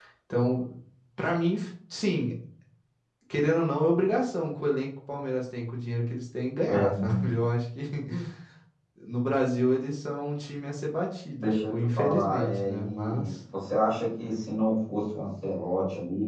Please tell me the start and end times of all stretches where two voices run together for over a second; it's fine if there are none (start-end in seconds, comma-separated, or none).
11.4-13.3